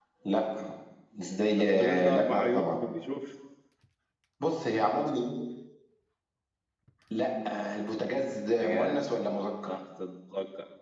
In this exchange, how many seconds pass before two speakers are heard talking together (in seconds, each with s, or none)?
1.6 s